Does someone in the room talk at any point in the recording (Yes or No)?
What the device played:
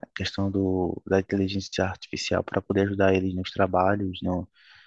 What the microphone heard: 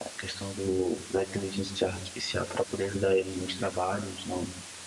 No